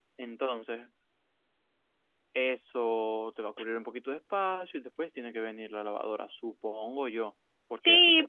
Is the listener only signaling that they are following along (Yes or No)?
No